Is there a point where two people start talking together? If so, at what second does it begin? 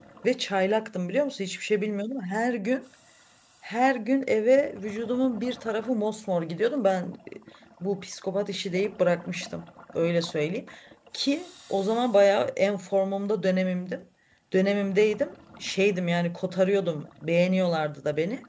none

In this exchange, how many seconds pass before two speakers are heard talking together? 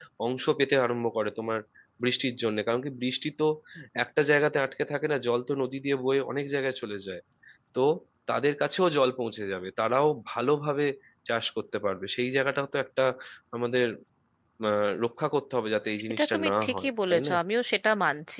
16 s

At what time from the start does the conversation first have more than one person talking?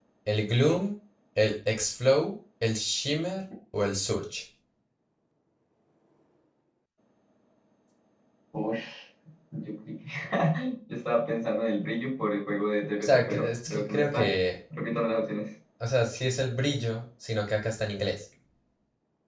13 s

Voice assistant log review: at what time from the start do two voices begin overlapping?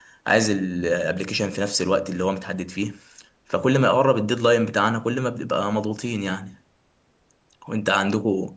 none

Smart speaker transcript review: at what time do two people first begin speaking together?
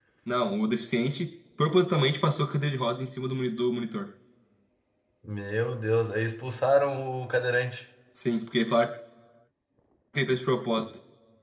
none

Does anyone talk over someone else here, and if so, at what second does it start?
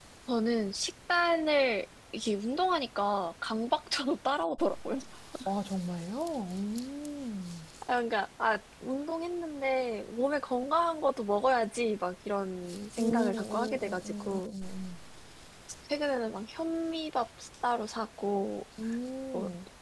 13 s

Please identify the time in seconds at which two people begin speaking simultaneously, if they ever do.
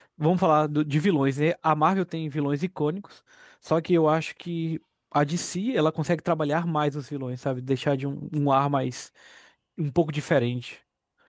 none

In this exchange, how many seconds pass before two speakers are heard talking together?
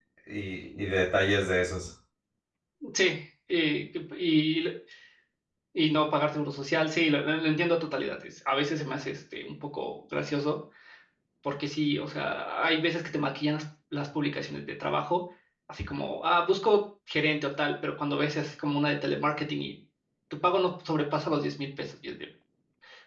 none

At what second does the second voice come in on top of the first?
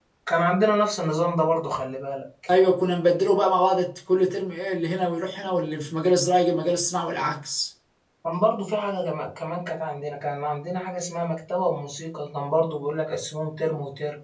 none

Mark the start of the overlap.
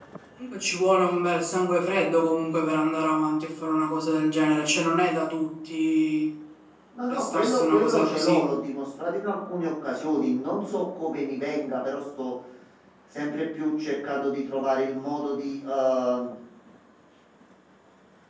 7 s

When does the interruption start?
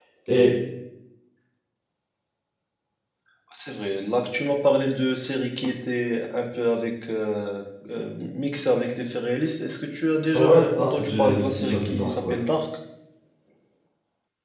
10 s

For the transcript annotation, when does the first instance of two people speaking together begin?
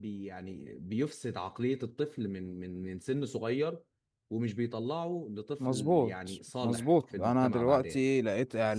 6 s

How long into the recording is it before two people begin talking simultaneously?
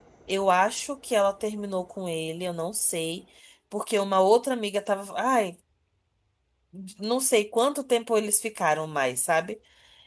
none

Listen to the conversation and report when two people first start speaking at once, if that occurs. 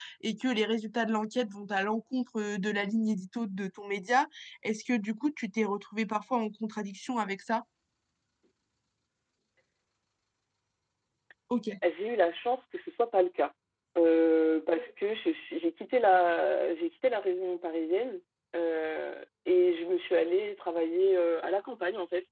none

